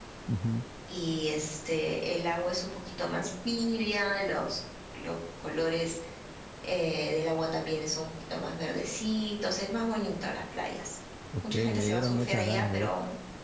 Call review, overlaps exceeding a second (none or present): present